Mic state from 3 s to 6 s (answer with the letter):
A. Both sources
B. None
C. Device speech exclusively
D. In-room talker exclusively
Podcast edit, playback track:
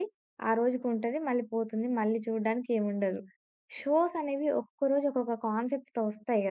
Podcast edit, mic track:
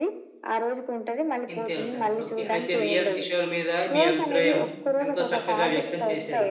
A